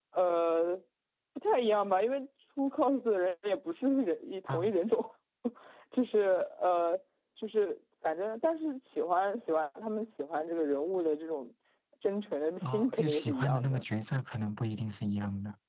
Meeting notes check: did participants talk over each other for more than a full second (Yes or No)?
Yes